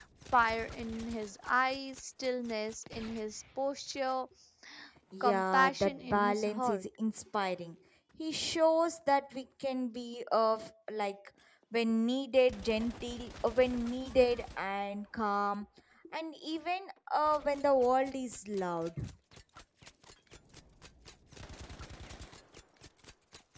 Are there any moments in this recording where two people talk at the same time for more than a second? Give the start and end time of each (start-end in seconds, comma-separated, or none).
5.2-6.8